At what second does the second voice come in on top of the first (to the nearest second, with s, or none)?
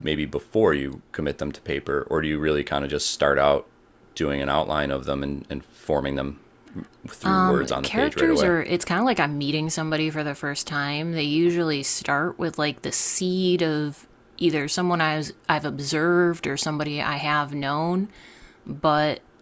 7 s